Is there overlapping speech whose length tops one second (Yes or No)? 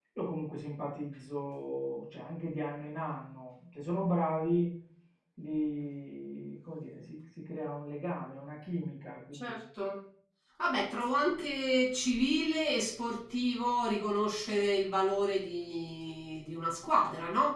No